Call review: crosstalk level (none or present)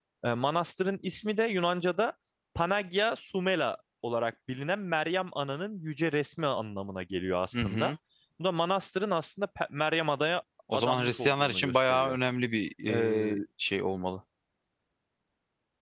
present